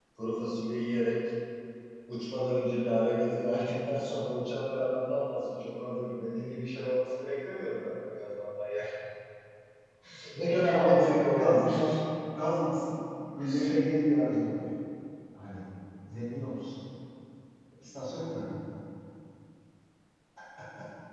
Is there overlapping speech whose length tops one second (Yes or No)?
Yes